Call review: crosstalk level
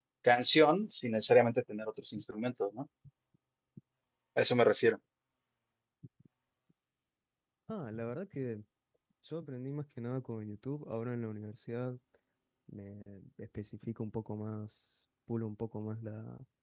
none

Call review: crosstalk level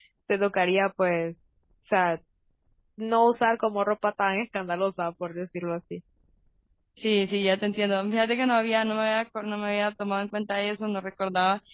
none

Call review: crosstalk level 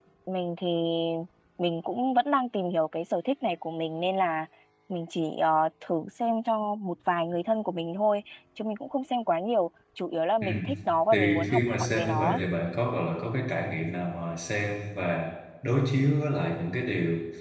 present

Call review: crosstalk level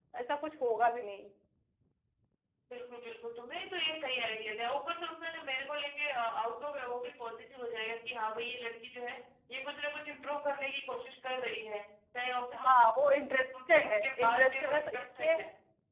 present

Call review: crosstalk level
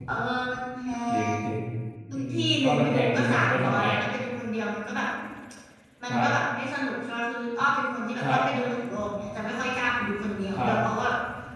present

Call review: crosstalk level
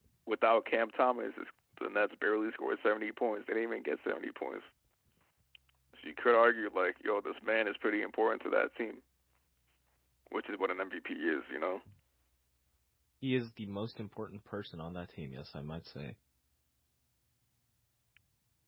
none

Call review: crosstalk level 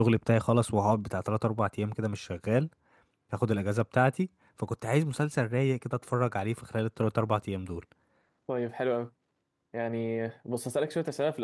none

